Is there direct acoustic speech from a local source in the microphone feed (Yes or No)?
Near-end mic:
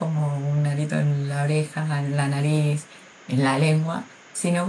Yes